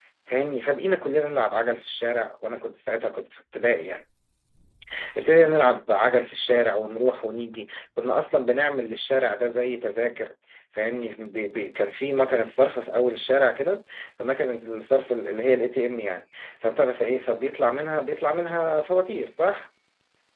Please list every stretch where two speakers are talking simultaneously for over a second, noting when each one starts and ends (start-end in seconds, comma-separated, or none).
none